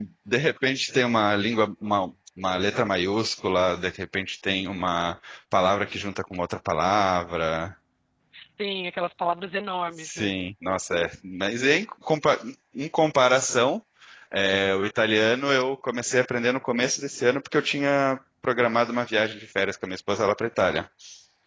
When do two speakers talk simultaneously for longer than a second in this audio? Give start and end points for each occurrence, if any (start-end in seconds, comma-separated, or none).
none